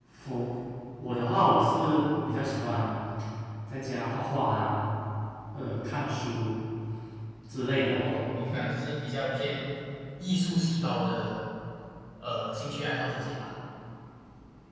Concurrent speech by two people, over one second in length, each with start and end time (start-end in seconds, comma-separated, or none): none